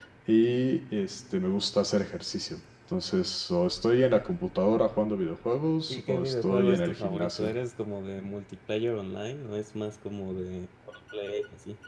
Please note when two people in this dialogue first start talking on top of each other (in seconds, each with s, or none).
5.9 s